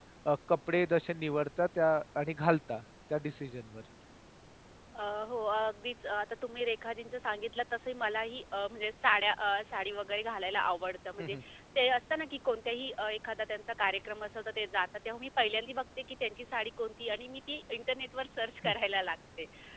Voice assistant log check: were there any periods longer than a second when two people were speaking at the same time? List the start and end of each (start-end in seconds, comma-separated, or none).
none